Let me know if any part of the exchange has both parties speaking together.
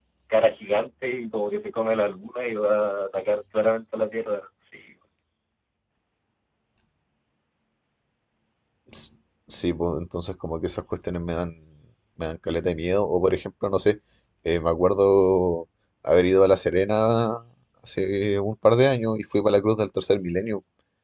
No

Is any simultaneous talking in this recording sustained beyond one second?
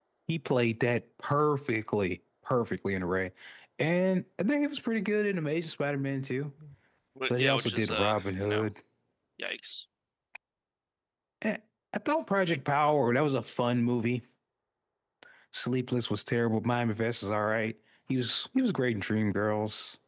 Yes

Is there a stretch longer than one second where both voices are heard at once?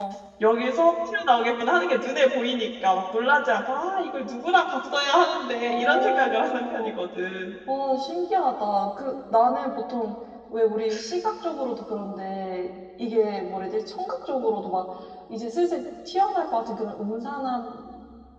Yes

